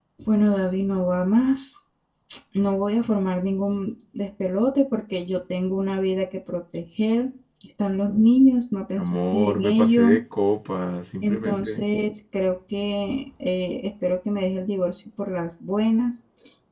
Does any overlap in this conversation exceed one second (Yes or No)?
Yes